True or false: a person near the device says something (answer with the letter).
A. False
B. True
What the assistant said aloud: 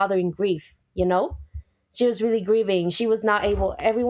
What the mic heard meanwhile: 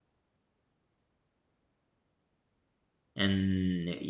B